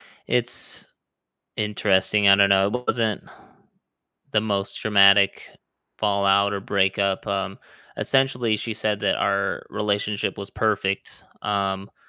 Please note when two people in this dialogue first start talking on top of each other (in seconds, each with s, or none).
none